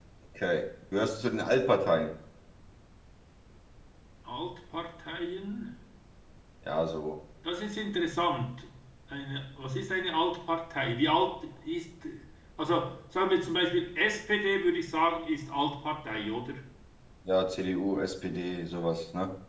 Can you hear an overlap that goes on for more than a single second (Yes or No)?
No